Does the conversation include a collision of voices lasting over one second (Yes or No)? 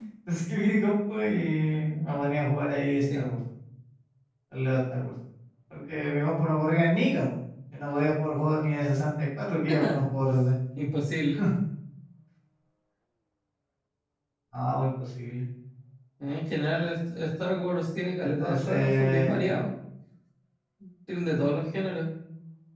Yes